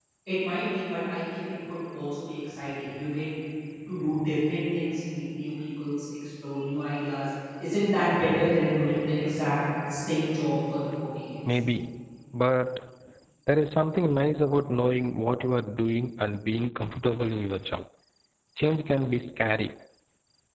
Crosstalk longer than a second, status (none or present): none